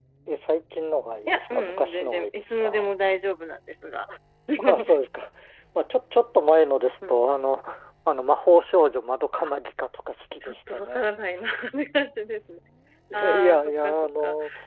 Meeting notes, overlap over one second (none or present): present